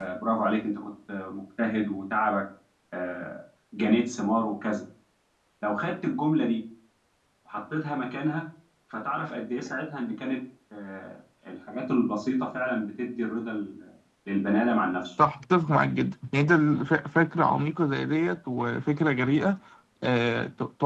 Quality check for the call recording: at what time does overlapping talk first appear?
none

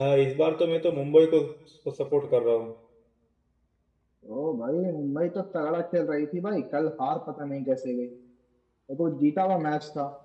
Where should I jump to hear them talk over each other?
none

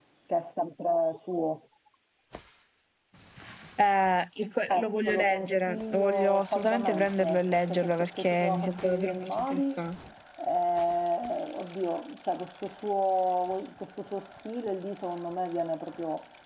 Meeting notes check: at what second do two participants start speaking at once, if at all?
5 s

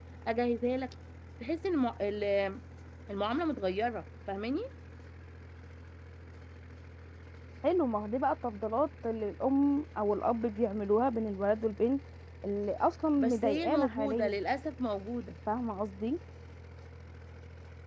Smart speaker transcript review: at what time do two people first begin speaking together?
13 s

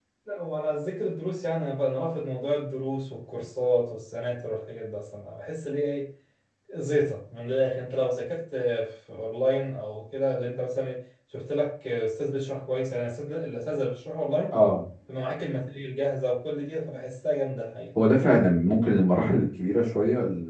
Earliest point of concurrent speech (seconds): none

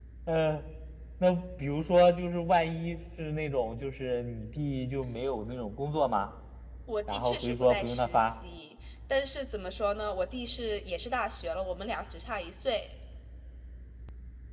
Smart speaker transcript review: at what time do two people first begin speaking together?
7 s

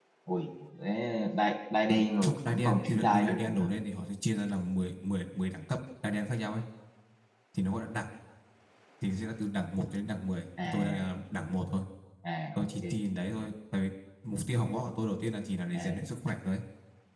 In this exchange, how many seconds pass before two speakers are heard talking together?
2 s

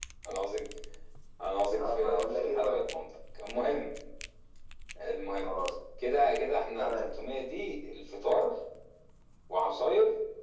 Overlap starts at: 2 s

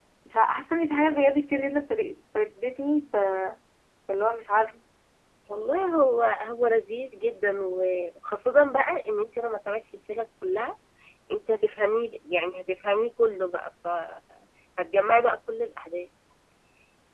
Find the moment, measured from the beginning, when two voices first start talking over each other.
none

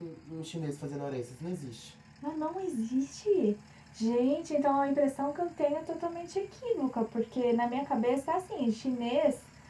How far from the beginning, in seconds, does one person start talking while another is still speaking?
none

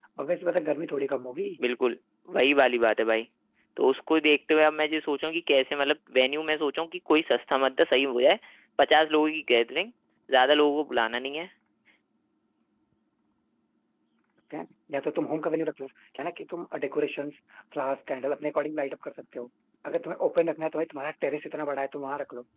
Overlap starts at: none

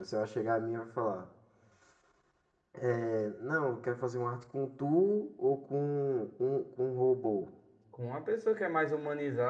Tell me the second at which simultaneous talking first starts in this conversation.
none

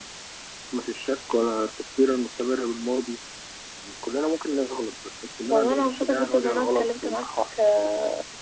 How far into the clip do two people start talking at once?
6 s

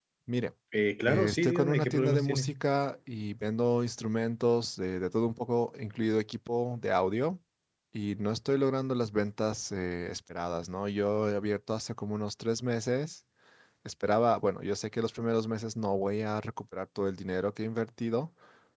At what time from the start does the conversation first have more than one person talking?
1 s

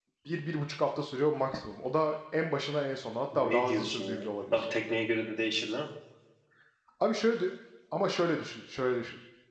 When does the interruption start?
3 s

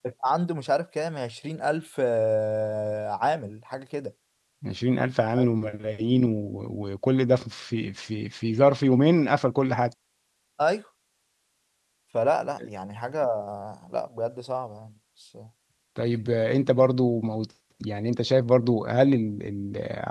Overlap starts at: none

